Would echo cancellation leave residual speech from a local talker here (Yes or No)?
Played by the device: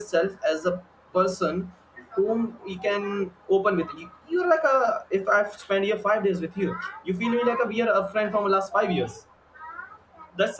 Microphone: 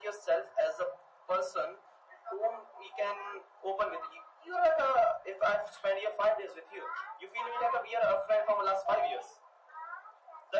No